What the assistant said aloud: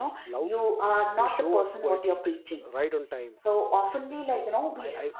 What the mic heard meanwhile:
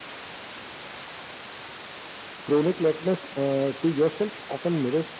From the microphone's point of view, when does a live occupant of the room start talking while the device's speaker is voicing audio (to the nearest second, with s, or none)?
2 s